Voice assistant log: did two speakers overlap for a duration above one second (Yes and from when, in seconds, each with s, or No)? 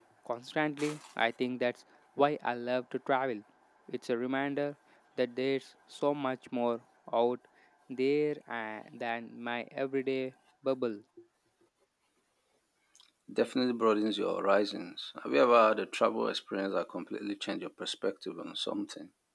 No